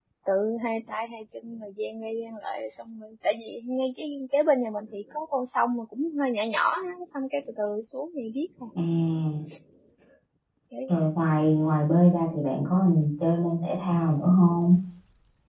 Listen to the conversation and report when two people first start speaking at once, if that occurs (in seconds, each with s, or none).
none